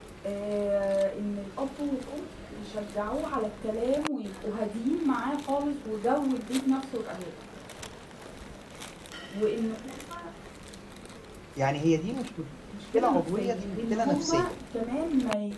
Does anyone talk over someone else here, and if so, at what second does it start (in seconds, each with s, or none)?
12.7 s